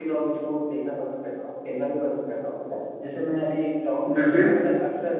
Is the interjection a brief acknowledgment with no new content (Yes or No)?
Yes